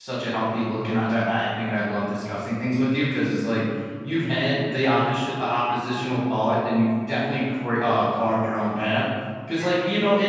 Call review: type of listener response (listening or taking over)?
listening